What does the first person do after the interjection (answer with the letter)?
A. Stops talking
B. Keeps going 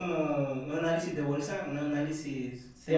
A